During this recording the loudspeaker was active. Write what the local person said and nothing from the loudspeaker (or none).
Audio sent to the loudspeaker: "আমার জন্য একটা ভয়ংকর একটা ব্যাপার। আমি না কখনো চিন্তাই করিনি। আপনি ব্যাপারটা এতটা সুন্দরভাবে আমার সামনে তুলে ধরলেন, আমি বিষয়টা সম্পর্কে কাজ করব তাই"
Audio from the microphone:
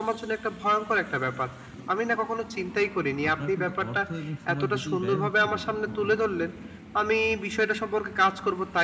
আপনার কিন্তু অর্থ এবং সময় দুটোই ব্যয় হচ্ছে বটে। কিন্তু